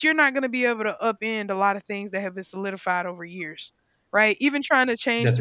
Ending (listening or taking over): listening